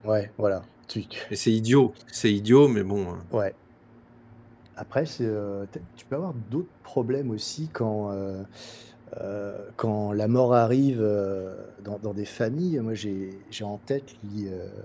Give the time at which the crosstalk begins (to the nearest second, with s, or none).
none